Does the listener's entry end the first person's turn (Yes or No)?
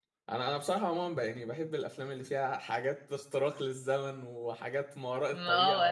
No